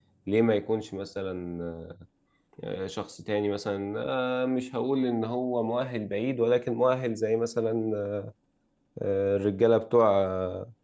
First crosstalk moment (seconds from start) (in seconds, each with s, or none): none